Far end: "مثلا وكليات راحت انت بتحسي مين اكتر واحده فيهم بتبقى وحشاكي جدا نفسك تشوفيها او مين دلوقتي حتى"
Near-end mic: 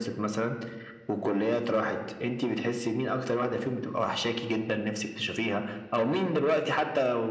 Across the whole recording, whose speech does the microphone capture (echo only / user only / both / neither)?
echo only